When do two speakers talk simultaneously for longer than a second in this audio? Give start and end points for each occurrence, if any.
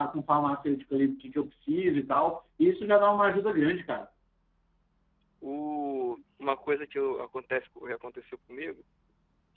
none

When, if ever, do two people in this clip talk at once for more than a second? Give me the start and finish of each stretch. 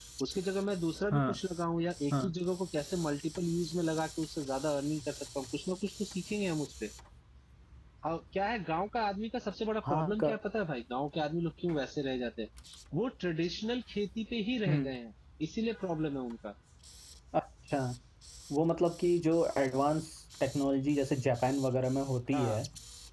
none

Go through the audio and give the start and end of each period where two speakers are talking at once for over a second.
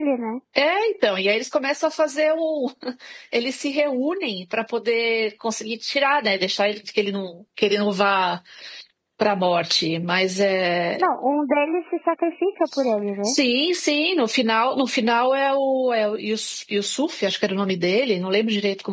none

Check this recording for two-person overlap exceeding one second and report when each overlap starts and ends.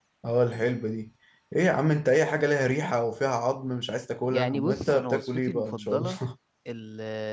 4.3-6.1

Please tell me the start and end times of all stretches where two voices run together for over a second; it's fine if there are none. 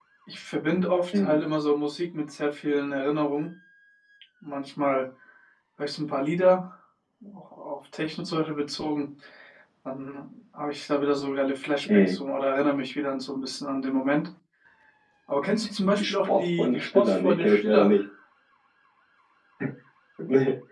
16.0-17.9

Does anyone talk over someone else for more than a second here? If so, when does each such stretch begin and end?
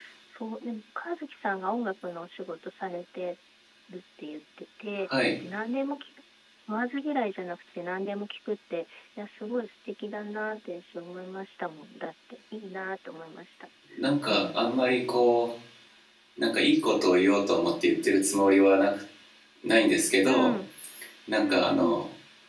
none

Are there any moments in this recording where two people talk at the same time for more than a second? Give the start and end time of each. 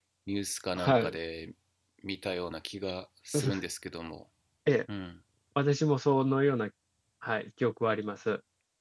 none

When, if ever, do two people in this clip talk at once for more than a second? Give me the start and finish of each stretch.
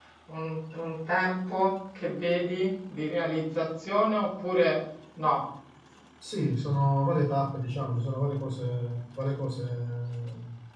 none

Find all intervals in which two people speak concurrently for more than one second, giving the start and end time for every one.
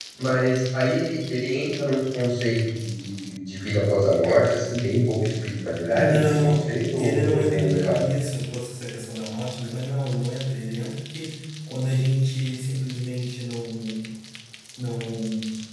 5.9-8.0

